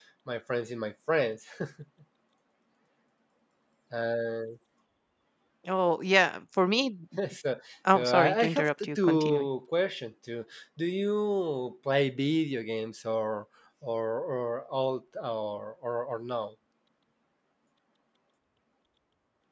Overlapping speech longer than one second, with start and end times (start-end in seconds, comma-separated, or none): 7.9-9.5